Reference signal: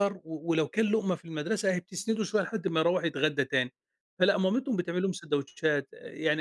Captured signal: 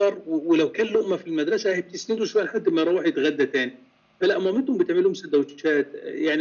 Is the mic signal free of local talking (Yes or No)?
Yes